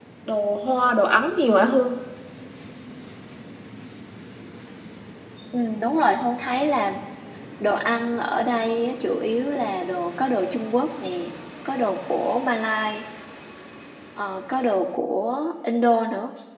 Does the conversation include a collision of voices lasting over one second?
No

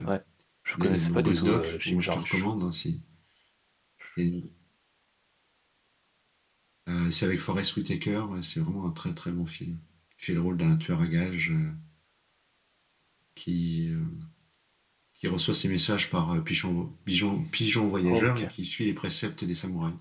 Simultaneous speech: Yes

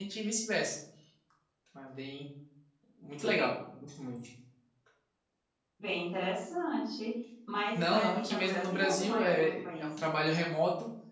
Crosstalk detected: Yes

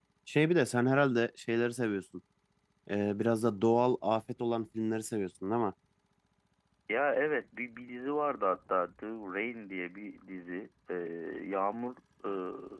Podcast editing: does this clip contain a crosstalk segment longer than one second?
No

